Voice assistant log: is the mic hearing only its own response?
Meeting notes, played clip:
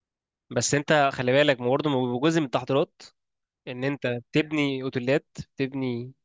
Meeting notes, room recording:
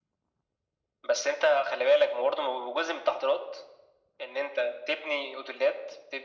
Yes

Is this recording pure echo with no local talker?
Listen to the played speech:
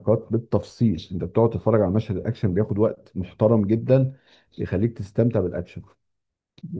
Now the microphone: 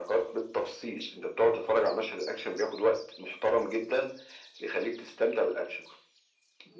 Yes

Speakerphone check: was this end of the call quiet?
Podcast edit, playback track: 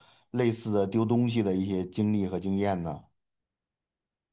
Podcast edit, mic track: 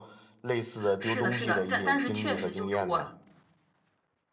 No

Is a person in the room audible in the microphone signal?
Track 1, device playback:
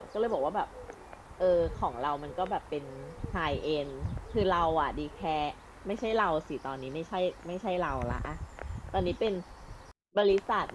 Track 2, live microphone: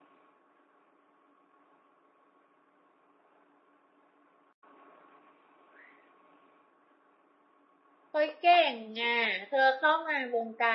Yes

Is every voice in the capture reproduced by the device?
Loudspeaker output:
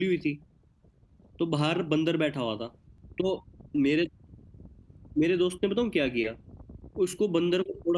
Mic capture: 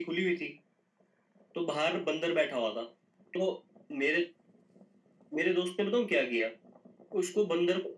Yes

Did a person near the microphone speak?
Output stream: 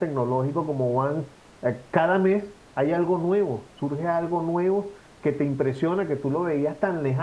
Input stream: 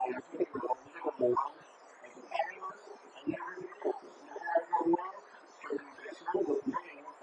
No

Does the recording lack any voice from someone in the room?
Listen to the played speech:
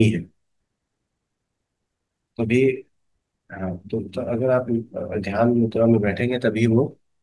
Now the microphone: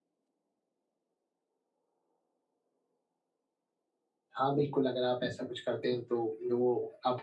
No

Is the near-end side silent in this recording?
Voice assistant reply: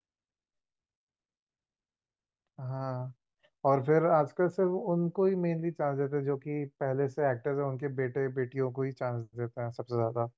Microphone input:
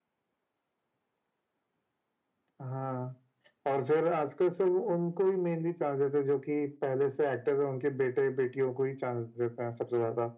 Yes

